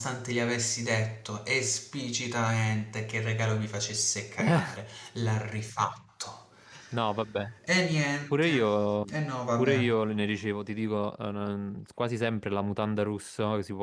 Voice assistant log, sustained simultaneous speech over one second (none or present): none